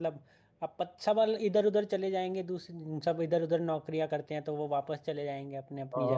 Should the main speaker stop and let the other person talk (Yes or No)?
Yes